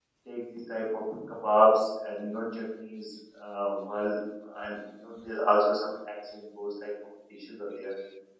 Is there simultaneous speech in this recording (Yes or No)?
No